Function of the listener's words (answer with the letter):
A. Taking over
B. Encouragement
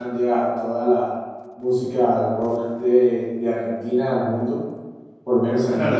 A